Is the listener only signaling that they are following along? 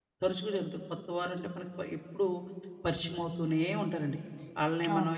Yes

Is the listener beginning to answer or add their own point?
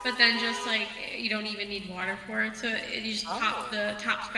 No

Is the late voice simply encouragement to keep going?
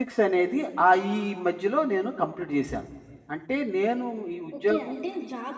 No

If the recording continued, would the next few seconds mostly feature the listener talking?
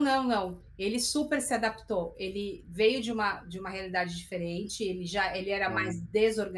No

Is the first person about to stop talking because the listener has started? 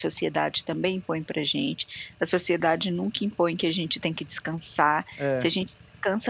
No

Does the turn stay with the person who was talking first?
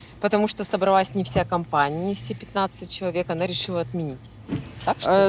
No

